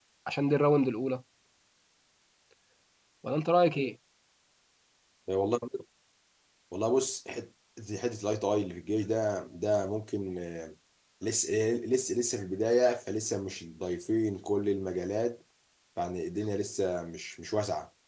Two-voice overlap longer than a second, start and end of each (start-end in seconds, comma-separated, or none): none